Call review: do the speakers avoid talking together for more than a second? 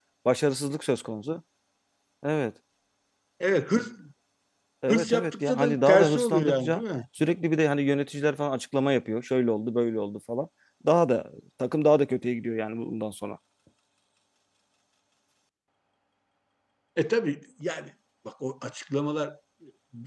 No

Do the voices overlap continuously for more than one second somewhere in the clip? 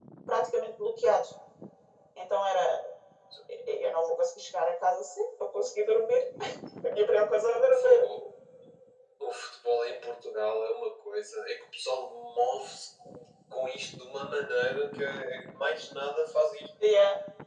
No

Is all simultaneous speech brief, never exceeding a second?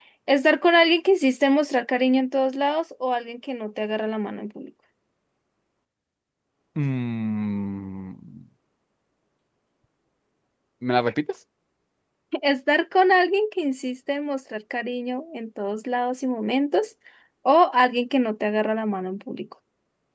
Yes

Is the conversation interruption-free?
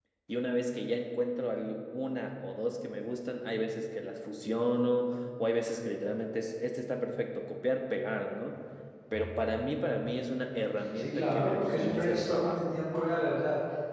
No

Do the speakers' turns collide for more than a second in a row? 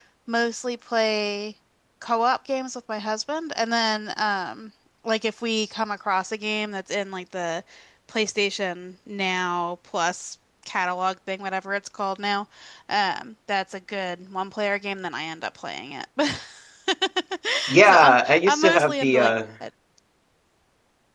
Yes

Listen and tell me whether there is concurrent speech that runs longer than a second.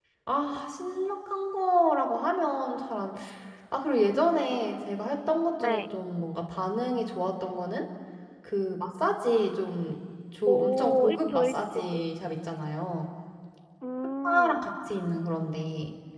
Yes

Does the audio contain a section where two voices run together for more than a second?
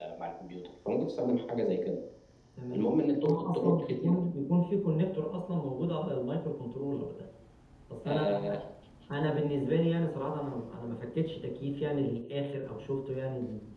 Yes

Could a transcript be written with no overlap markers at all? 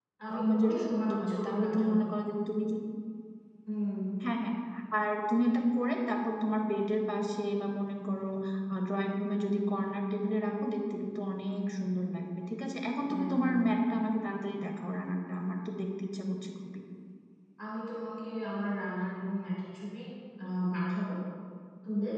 No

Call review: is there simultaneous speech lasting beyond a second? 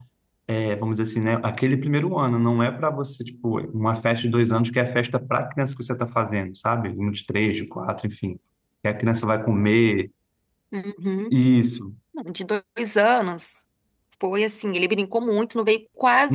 No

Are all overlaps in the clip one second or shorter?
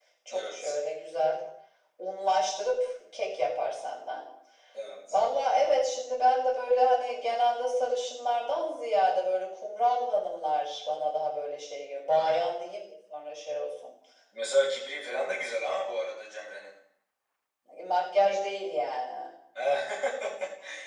Yes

